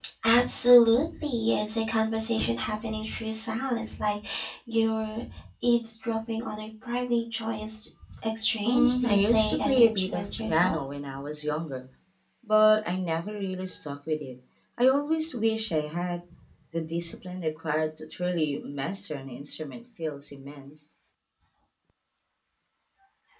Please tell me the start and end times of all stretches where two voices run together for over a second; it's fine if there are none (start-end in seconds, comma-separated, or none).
8.7-10.8